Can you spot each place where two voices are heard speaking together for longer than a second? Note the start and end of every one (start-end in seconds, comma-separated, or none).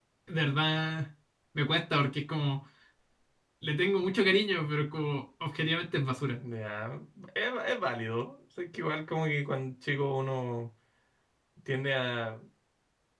none